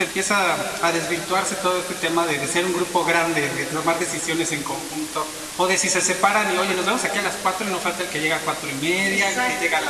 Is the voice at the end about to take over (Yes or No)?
Yes